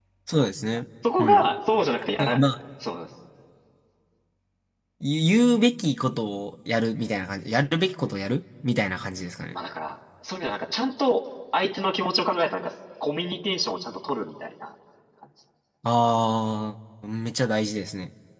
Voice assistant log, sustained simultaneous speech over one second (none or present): none